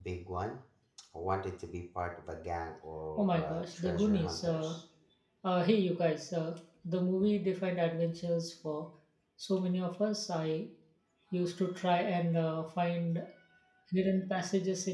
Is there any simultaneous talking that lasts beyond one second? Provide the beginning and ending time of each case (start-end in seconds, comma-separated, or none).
3.2-4.8